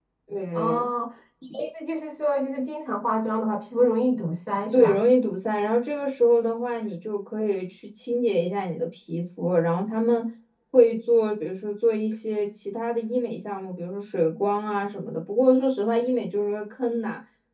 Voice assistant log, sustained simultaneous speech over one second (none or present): none